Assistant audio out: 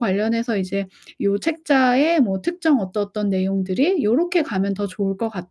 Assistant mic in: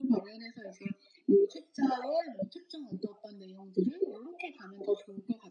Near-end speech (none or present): none